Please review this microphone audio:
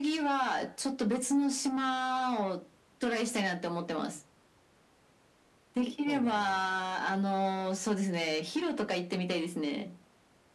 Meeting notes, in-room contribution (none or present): present